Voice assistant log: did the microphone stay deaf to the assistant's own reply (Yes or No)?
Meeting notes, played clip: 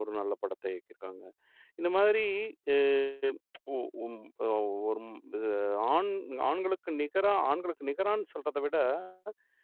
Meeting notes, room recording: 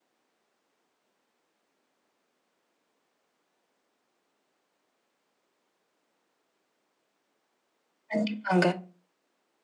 Yes